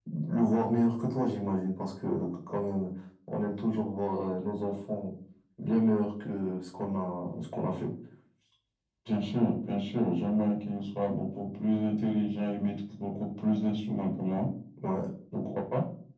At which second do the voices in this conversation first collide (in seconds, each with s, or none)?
none